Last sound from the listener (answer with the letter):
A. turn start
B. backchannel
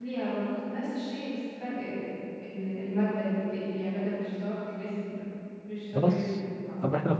A